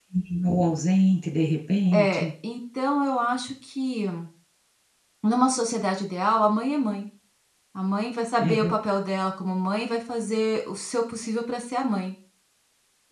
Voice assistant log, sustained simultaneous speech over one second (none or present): none